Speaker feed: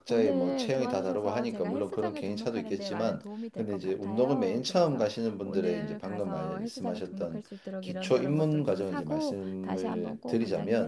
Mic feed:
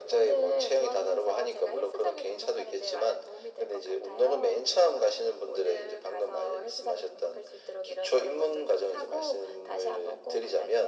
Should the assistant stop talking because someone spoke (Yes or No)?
No